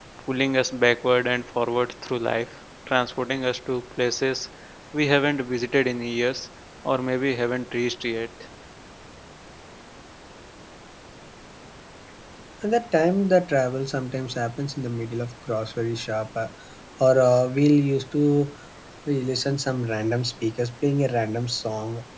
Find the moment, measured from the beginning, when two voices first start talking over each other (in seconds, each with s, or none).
none